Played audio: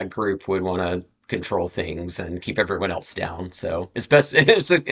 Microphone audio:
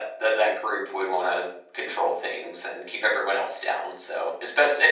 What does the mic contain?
echo only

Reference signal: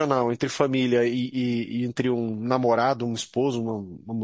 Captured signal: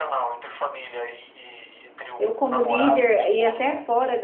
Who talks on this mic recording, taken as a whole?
both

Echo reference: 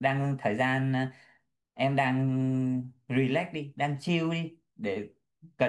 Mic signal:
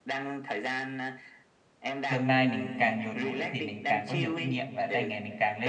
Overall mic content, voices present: both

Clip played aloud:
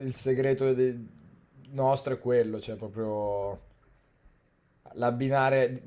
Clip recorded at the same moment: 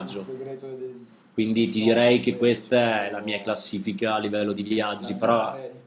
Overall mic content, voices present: both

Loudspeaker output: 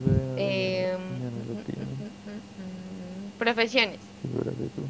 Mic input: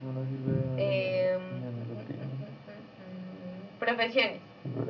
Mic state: echo only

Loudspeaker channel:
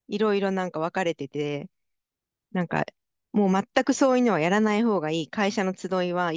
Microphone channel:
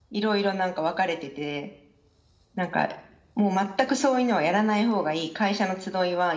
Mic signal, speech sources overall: echo only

